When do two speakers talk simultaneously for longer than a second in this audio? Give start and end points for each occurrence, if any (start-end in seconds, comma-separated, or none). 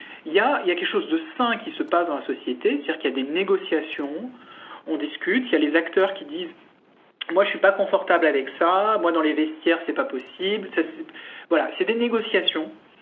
none